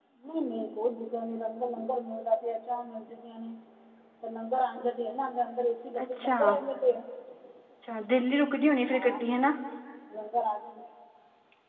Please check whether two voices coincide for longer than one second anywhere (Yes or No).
No